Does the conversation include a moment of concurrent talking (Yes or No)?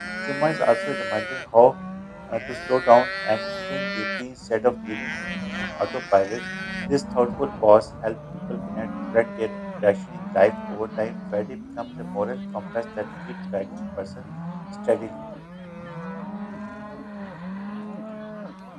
No